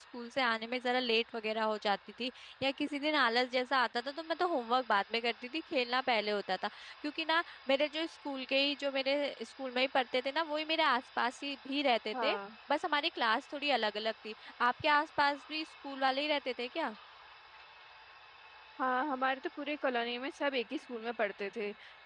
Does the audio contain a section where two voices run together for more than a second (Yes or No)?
No